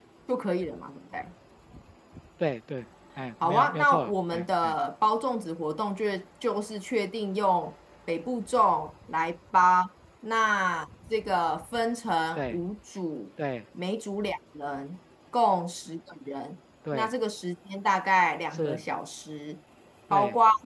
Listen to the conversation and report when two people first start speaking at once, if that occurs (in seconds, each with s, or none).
3.4 s